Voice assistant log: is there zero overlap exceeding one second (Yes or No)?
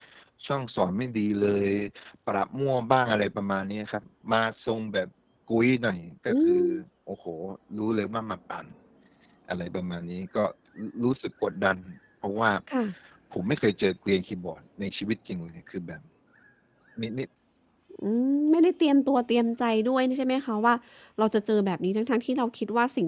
Yes